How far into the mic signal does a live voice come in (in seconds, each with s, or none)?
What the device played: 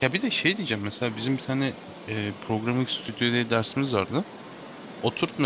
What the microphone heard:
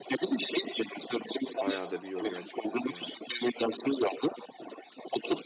1.6 s